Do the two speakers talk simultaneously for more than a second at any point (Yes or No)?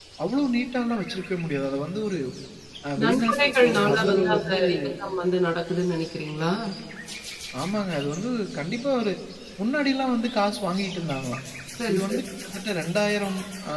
Yes